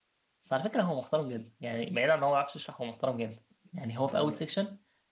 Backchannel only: Yes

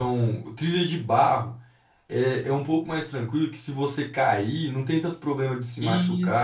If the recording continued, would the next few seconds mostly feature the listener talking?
No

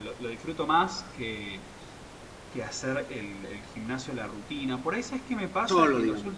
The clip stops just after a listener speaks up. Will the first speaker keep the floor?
Yes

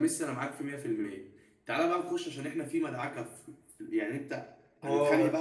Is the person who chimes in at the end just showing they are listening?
No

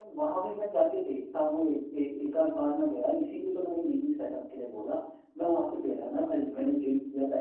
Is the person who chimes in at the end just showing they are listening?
Yes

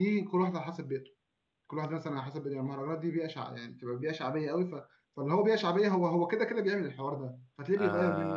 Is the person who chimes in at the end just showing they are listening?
No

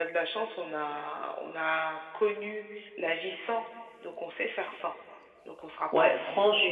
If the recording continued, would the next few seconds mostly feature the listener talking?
Yes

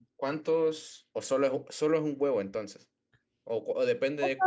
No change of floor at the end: No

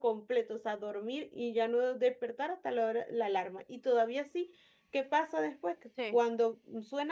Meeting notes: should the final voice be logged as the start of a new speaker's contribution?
No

